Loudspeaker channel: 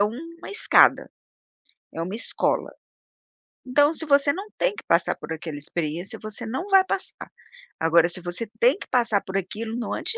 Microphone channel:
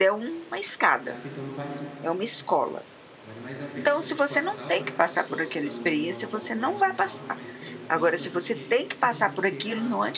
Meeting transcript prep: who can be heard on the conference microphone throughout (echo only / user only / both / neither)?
both